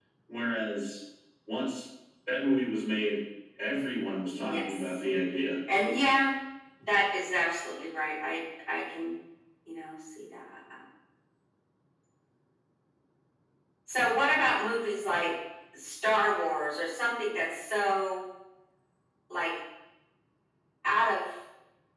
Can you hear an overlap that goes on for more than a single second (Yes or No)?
No